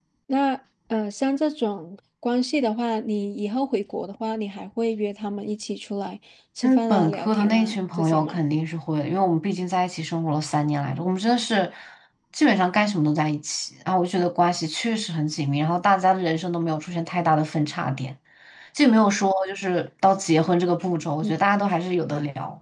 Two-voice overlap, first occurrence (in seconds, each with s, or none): 6.6 s